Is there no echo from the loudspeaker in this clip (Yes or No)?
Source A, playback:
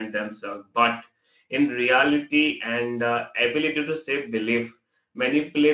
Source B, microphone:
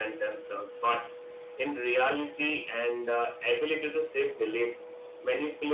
No